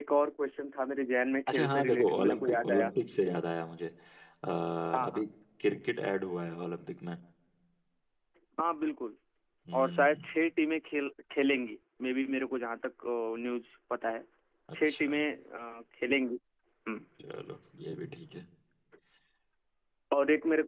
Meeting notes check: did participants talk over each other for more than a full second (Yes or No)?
Yes